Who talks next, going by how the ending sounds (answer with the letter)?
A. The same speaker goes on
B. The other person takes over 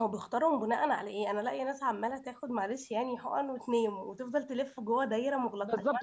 B